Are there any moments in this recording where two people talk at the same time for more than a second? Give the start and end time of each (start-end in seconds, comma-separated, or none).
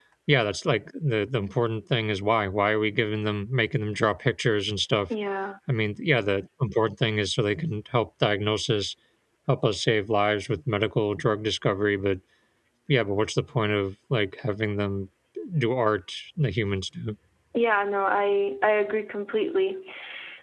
none